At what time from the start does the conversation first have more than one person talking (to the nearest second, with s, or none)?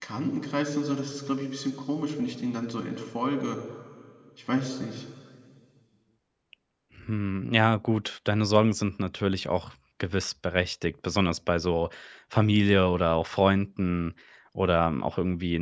none